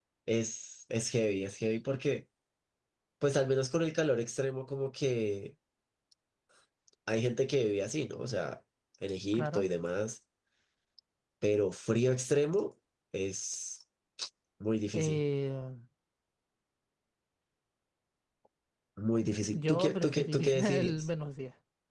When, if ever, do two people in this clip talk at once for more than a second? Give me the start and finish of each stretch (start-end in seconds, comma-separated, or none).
19.5-21.1